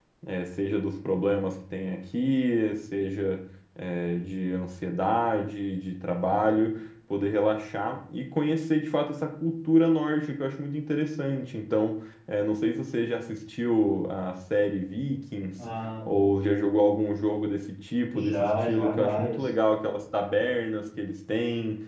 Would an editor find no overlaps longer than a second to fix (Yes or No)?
No